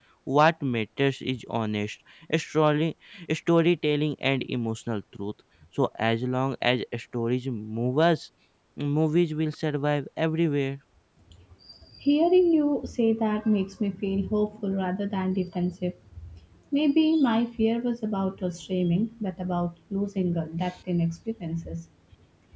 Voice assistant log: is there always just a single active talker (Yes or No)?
Yes